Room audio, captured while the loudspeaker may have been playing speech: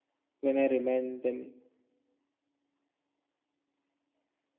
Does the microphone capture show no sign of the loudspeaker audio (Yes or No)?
Yes